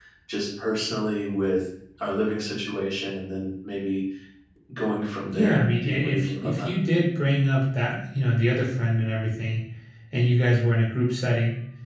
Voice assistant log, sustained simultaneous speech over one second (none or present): present